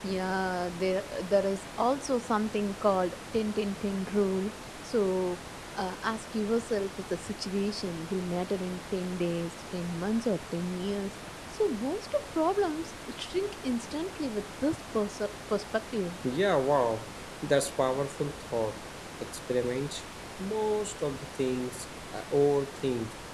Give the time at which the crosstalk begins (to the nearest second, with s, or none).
none